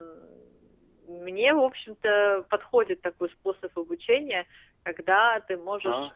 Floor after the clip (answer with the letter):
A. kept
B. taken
A